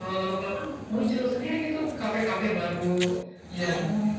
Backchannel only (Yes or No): Yes